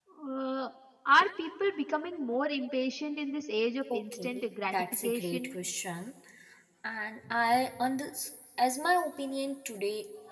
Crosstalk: present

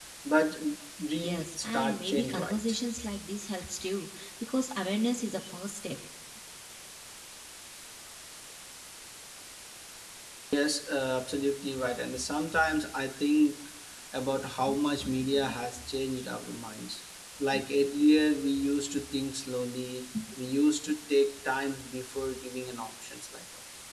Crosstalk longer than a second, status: present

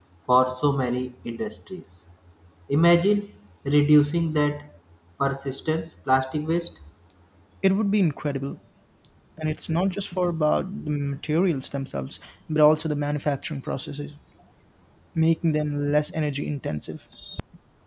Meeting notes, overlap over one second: none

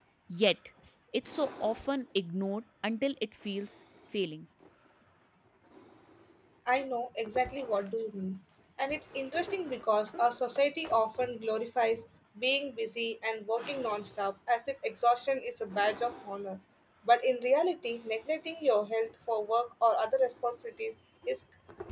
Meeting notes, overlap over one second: none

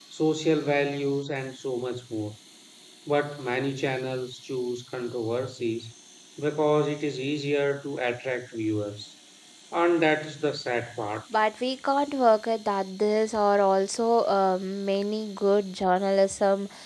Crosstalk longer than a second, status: none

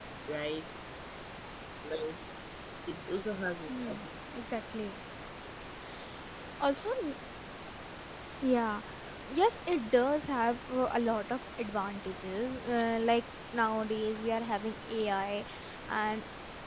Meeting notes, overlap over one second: none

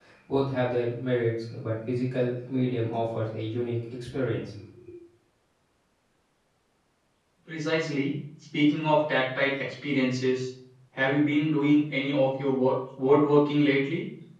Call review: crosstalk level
none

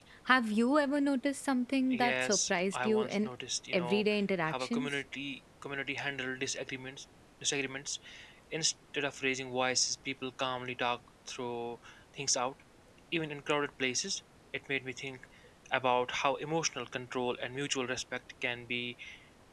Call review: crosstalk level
present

